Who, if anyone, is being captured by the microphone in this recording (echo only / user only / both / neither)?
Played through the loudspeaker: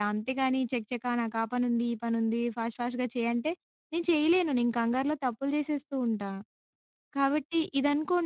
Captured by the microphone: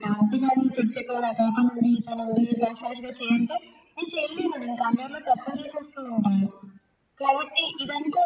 echo only